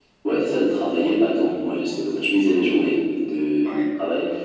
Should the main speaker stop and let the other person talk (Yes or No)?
No